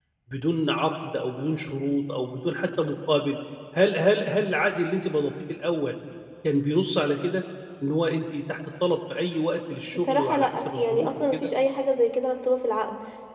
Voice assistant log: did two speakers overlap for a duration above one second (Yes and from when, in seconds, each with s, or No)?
Yes, from 9.9 s